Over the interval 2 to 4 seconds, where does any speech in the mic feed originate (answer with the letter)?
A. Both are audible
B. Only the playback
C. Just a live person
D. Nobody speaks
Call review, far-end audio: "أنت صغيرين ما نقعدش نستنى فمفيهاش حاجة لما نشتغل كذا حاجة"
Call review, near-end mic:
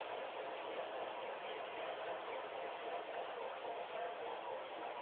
D